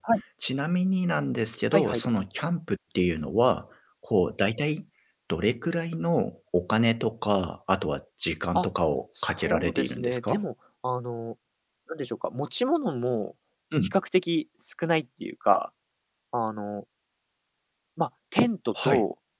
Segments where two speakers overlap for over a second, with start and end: 9.2-10.4

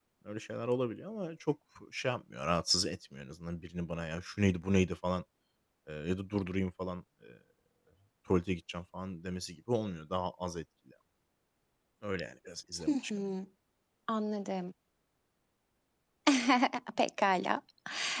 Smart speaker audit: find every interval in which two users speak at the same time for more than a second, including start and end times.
none

